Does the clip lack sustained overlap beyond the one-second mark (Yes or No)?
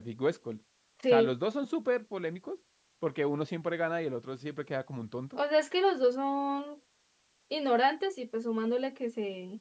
Yes